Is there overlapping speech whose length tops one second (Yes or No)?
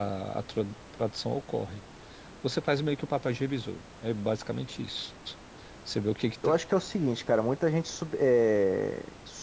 No